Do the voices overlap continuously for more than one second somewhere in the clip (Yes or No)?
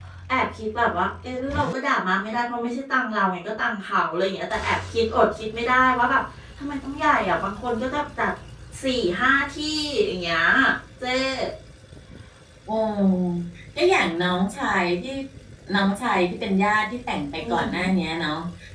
No